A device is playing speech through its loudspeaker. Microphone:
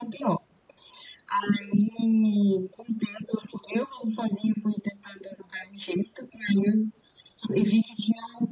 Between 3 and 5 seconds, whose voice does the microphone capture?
echo only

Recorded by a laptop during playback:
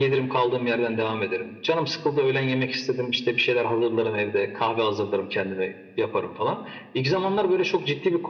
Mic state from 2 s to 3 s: echo only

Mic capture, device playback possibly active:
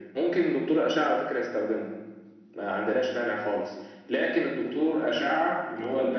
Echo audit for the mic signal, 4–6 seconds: echo only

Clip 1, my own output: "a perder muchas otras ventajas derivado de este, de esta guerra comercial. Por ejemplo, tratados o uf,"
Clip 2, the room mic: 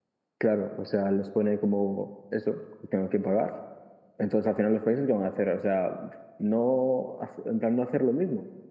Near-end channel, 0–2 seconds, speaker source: user only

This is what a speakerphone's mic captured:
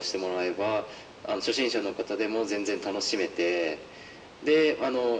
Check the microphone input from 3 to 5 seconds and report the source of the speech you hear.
echo only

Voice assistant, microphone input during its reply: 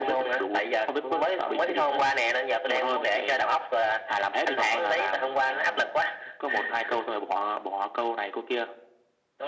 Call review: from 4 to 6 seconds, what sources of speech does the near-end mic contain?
echo only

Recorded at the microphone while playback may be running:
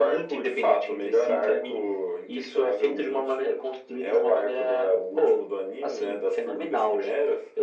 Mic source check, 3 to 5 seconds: echo only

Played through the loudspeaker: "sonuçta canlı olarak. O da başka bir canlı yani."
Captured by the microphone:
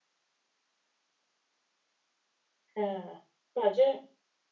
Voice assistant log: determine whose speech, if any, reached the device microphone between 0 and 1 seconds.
neither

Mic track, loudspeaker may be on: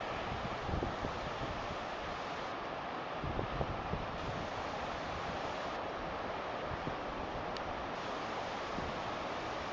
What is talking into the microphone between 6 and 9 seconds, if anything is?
neither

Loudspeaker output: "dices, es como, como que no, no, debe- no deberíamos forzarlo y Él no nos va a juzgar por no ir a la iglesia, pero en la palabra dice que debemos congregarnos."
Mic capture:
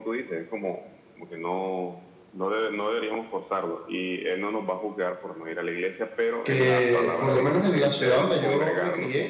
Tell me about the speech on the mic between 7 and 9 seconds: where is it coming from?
both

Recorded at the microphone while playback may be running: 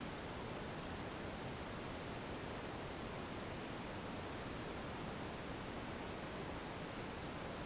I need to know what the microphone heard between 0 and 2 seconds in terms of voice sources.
neither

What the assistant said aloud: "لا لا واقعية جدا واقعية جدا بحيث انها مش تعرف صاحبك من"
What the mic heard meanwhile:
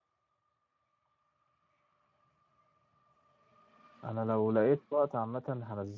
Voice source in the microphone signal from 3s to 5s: user only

